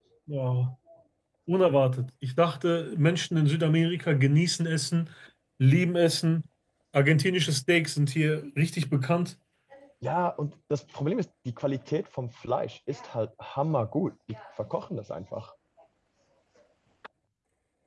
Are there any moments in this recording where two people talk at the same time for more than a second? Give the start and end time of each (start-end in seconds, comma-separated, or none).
none